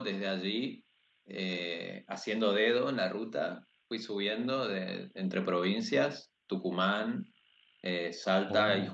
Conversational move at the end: listening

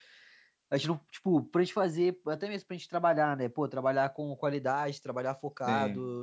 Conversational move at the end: listening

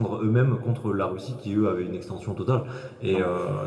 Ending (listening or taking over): listening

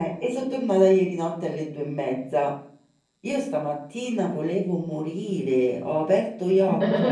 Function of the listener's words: listening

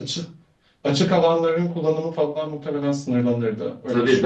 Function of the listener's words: taking over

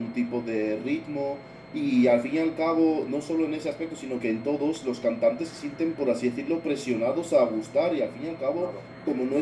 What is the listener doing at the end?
listening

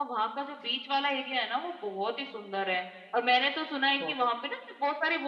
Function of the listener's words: listening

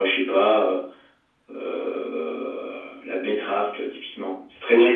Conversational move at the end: taking over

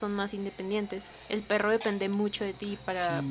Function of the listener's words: listening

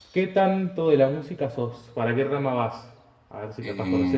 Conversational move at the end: taking over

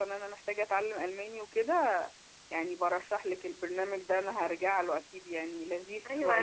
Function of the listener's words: taking over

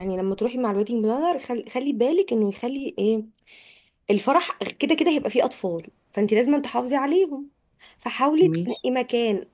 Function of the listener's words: listening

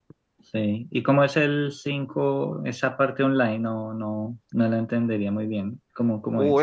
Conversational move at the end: taking over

